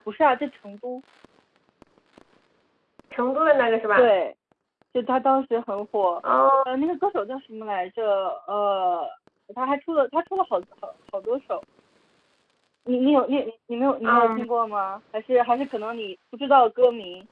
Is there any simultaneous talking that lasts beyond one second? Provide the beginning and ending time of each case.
none

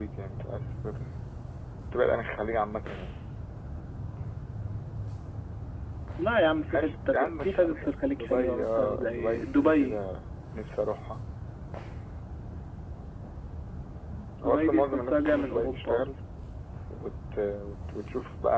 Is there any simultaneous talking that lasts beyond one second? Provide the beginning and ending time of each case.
6.7-10.0, 14.4-16.1

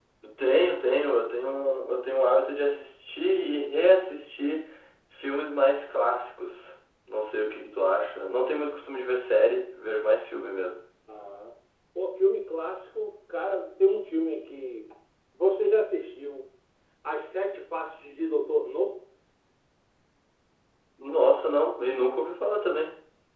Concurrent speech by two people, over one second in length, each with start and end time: none

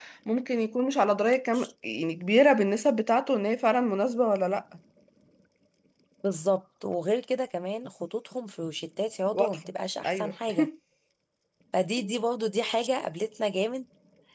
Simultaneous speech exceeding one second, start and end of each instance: none

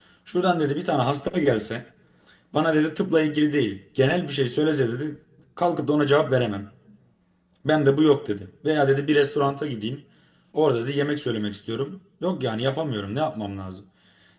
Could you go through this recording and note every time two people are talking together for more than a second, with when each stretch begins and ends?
none

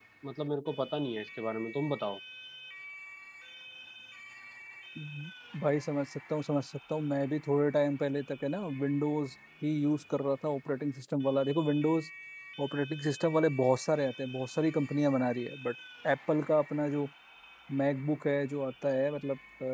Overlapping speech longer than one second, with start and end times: none

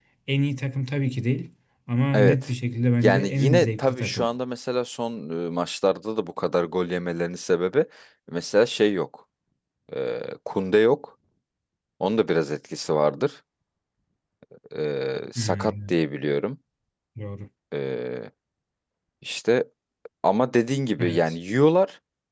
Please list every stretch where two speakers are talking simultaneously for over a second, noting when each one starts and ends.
3.0-4.3

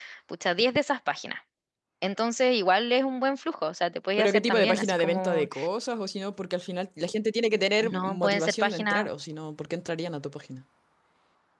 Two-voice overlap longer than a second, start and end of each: 4.2-5.5, 7.8-9.1

